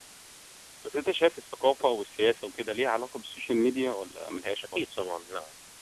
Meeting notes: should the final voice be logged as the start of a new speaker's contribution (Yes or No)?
Yes